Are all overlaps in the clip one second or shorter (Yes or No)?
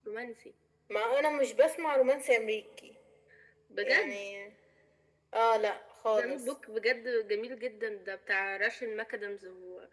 Yes